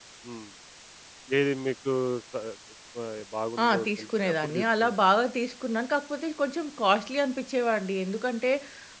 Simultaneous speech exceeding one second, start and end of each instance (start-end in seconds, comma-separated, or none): 3.6-5.0